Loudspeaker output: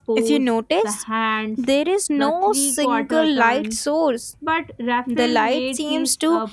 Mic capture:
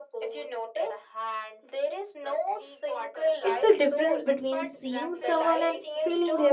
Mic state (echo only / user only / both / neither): both